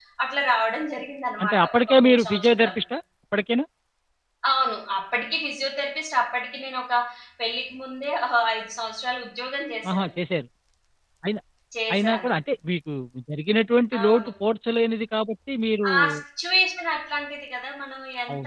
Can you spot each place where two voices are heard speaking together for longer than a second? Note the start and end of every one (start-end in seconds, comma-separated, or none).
1.4-2.8